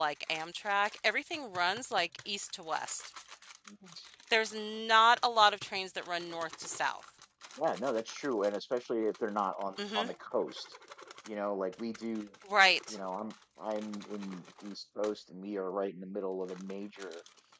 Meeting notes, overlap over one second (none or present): none